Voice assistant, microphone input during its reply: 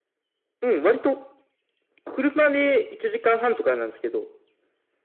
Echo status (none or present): present